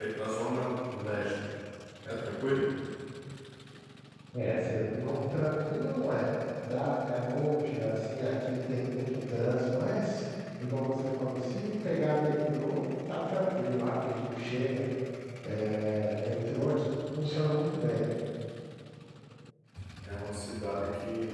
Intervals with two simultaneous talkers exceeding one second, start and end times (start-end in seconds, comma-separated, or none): none